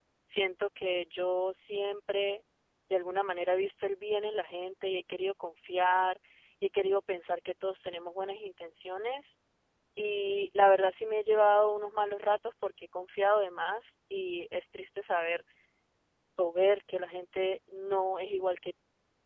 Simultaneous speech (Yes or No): No